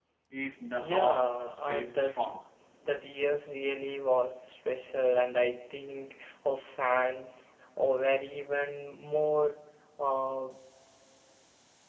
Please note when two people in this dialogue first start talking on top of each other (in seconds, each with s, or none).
0.8 s